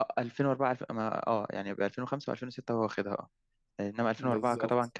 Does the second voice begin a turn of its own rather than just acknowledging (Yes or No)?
No